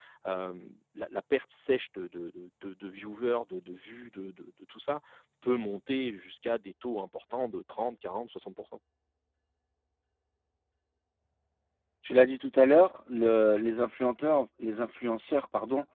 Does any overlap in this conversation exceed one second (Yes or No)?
No